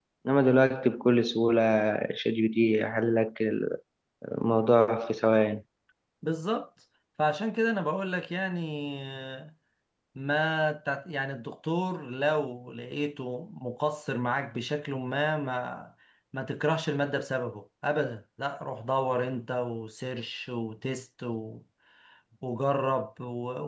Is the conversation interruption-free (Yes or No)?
Yes